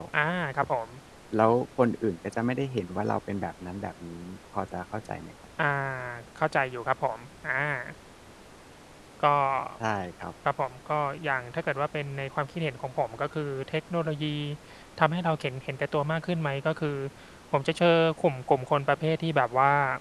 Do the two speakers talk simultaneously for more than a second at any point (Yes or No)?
No